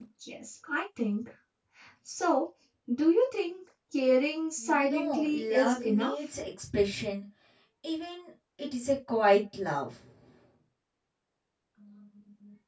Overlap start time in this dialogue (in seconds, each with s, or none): 4.6 s